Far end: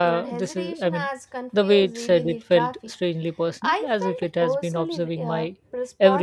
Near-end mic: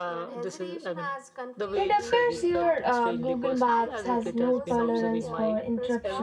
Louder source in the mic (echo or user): user